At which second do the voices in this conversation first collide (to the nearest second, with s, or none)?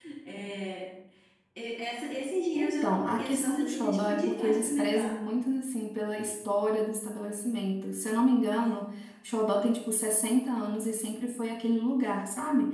3 s